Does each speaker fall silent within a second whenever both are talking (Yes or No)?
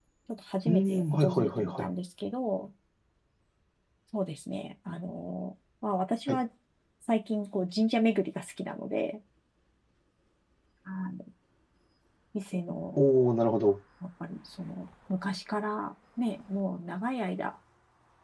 No